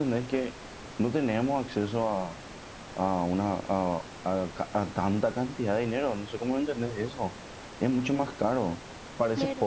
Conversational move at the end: listening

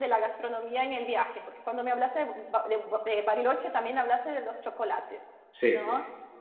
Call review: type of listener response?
listening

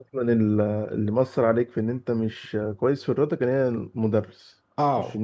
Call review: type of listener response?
taking over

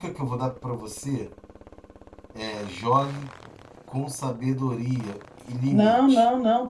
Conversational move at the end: taking over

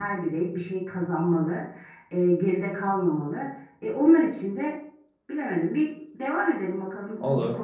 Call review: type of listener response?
taking over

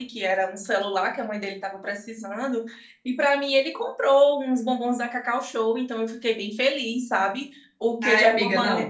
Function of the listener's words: taking over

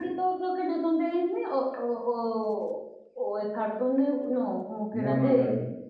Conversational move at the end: taking over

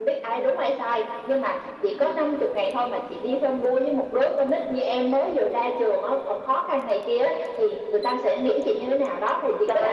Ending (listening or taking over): taking over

